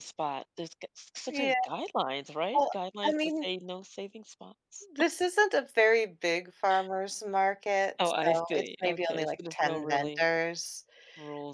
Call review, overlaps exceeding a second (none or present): present